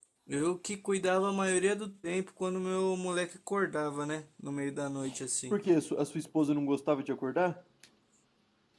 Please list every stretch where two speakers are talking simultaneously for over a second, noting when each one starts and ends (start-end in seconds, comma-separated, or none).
none